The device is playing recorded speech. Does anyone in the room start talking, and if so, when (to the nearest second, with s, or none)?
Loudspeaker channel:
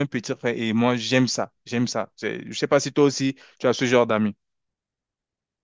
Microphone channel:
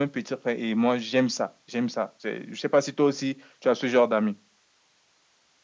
none